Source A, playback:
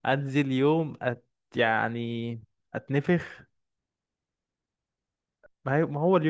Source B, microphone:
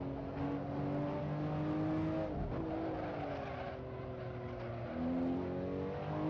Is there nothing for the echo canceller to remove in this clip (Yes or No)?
Yes